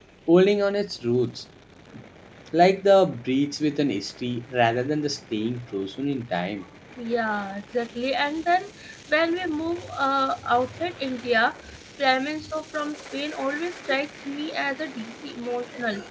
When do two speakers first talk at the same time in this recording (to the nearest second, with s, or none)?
none